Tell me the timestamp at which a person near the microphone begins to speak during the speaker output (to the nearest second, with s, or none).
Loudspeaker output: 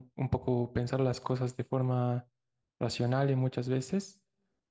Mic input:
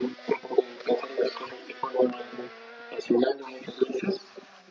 none